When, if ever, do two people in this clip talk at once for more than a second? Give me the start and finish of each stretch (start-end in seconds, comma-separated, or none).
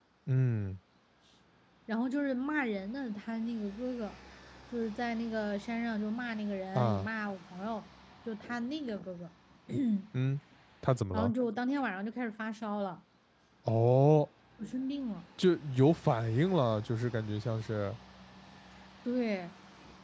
none